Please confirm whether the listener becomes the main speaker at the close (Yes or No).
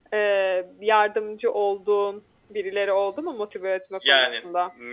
Yes